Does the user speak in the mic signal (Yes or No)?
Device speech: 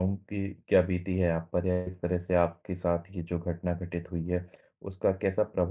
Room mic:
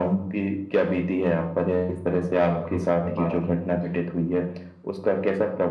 Yes